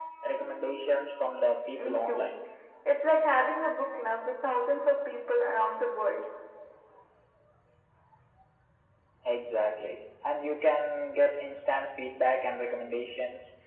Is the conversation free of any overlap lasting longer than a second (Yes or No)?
Yes